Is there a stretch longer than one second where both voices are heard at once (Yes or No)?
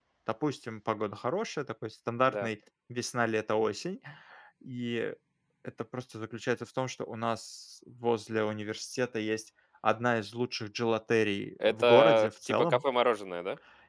Yes